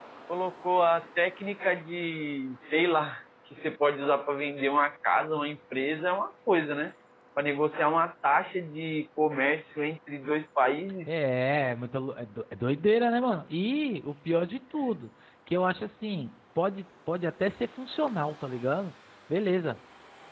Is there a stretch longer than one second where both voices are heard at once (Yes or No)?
No